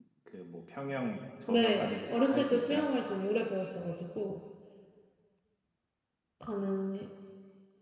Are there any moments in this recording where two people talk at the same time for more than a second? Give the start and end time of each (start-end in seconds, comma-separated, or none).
1.5-2.9